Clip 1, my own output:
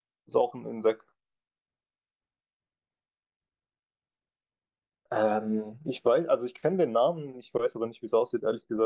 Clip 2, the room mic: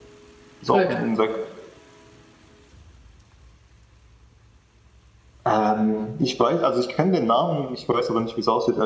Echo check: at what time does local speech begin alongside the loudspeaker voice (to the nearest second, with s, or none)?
1 s